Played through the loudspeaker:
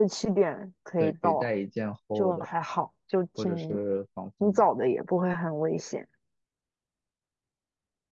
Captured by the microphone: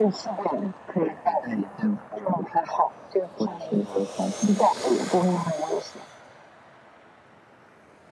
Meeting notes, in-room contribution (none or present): none